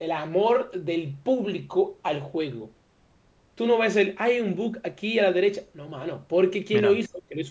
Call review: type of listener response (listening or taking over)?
listening